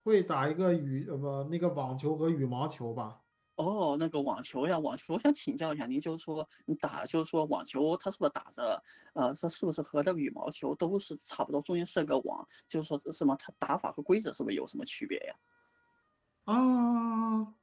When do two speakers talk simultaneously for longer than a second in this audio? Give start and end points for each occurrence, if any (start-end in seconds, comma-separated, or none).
none